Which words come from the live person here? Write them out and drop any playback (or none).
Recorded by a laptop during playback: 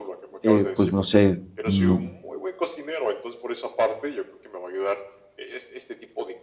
eh, pues no sé, no